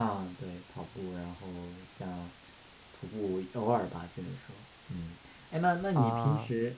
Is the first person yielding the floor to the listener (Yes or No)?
No